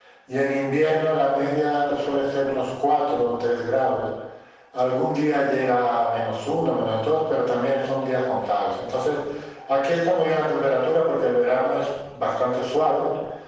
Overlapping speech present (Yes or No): No